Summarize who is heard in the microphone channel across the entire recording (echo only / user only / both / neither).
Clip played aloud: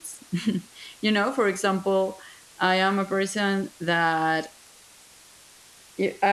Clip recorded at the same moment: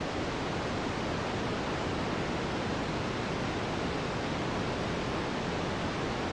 neither